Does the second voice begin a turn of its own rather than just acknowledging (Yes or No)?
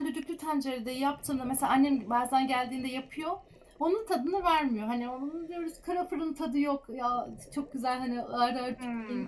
Yes